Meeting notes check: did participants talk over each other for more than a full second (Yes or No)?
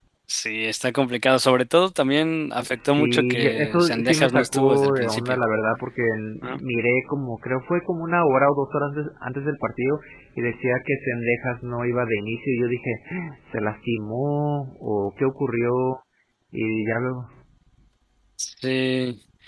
Yes